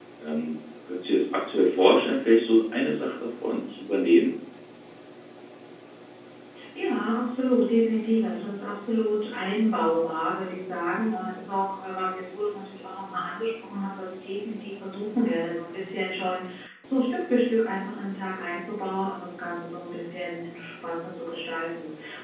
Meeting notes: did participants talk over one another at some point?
No

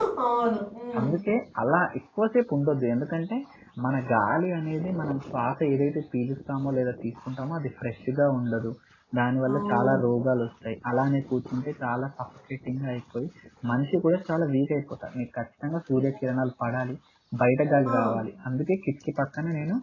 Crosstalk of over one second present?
No

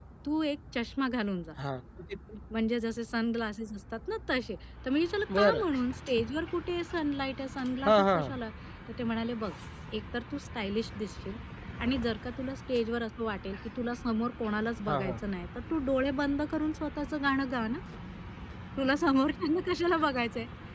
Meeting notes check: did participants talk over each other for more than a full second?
No

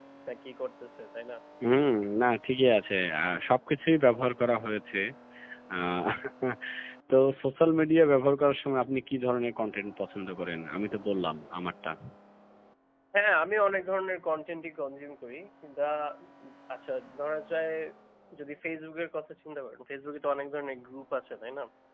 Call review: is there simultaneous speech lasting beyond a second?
No

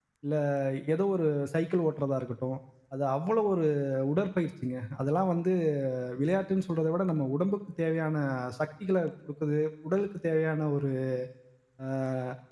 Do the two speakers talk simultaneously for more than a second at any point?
No

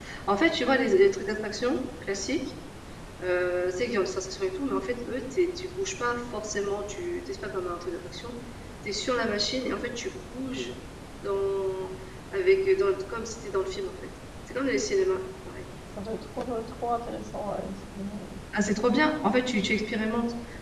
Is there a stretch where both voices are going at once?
No

